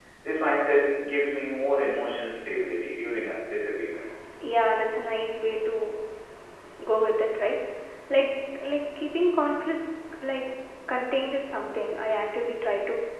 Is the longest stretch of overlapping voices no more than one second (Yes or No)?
Yes